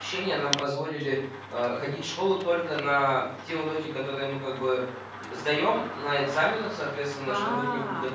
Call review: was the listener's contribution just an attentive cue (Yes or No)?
Yes